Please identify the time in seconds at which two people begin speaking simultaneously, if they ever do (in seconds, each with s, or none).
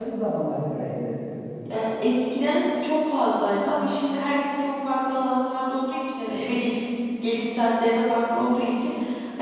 none